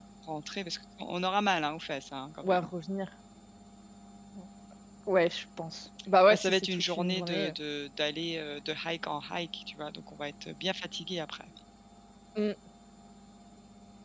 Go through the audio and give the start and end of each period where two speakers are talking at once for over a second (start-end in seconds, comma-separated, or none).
6.3-7.5